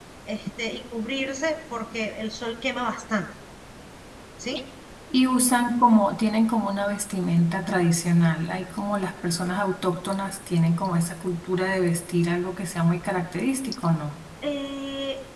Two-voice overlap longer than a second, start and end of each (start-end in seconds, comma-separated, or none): none